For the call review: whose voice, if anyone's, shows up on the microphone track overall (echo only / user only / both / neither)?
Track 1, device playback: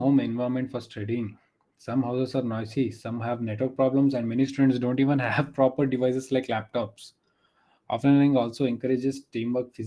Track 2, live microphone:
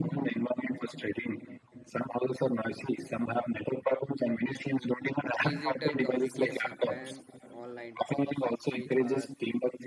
both